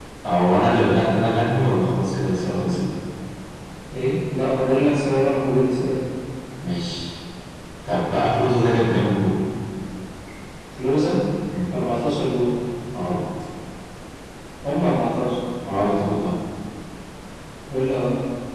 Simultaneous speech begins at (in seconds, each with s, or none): none